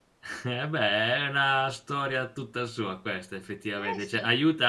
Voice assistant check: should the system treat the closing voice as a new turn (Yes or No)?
Yes